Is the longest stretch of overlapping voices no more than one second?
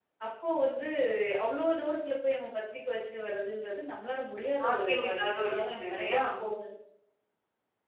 No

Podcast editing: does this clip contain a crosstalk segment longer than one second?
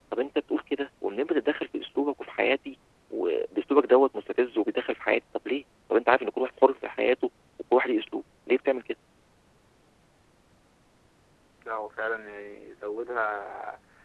No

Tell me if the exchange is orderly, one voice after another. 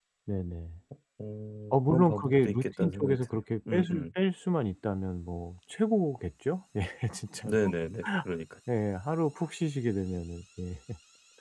No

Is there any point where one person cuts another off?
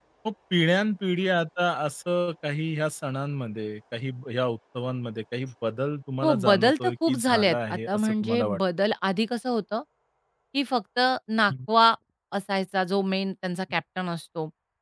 Yes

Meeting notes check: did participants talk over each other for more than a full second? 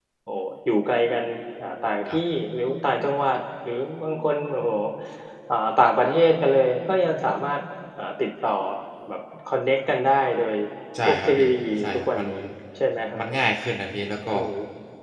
Yes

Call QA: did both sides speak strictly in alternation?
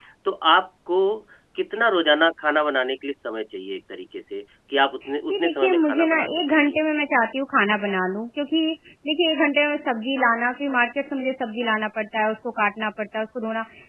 No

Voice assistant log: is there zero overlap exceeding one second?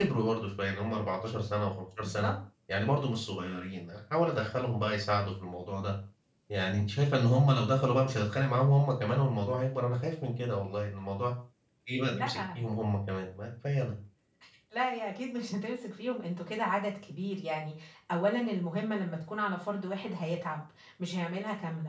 Yes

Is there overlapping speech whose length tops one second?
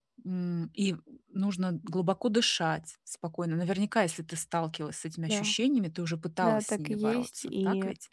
Yes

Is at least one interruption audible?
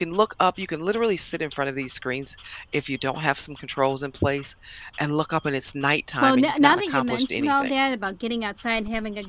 Yes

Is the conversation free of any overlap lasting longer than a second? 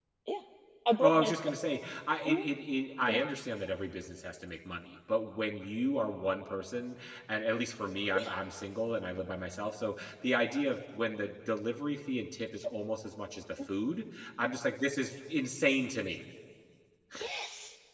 Yes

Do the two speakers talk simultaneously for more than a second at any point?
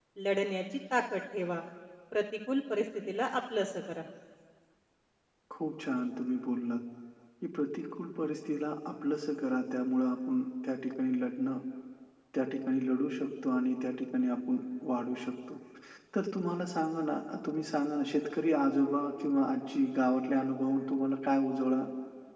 No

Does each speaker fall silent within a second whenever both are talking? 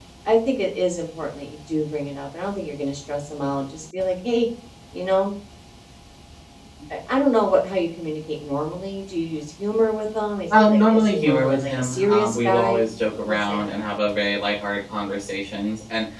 No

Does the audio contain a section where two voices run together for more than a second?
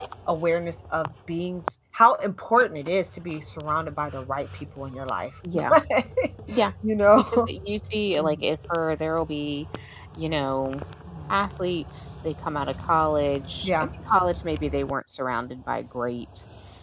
No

